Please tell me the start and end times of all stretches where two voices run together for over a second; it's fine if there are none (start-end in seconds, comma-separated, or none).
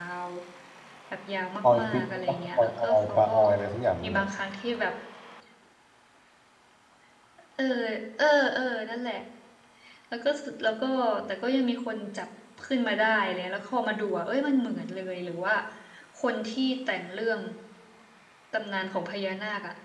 1.6-3.3